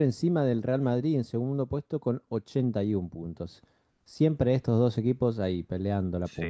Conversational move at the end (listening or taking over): taking over